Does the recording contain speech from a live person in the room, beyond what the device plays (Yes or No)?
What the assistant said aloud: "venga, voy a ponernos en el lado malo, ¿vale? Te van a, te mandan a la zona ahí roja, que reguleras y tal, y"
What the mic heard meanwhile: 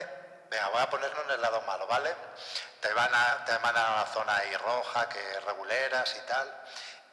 No